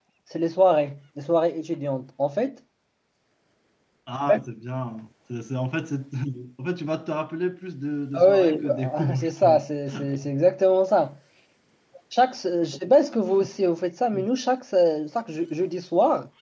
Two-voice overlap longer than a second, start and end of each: 8.1-9.7

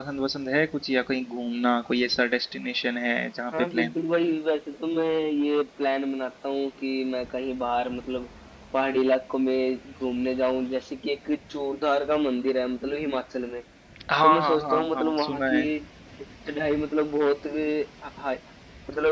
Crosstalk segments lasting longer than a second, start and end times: 14.2-15.6

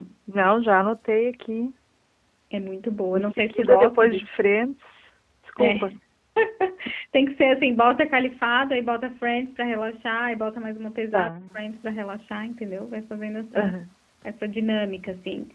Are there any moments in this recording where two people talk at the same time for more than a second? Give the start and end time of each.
3.1-4.5

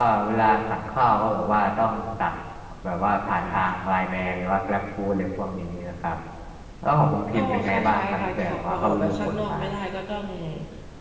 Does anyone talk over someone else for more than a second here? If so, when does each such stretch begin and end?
7.3-9.6

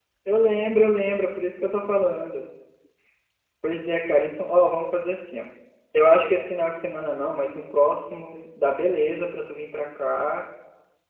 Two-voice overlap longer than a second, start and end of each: none

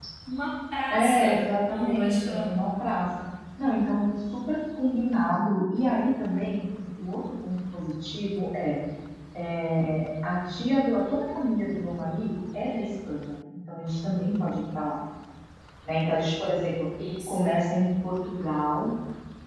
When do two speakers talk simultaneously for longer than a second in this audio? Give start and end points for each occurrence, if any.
0.9-2.5

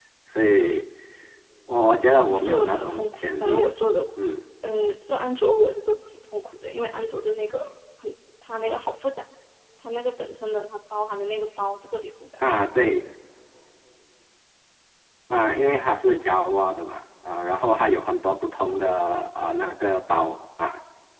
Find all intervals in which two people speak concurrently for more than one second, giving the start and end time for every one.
2.2-3.7

